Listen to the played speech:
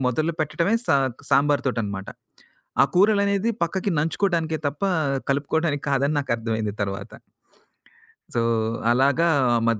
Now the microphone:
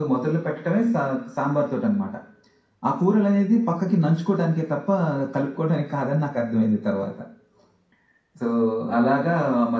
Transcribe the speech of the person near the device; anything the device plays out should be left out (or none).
none